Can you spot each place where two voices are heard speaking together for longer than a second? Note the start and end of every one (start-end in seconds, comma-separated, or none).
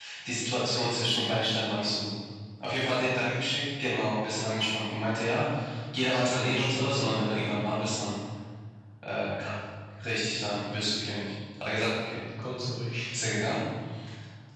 6.1-7.3